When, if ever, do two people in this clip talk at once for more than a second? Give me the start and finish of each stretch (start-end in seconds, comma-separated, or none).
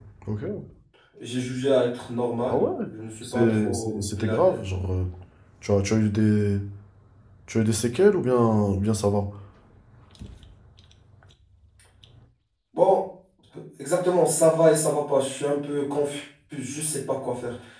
3.2-4.6